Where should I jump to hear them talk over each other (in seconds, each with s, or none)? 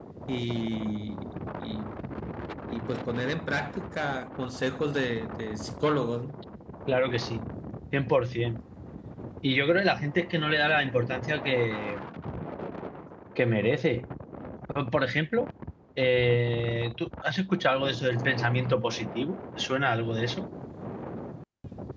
none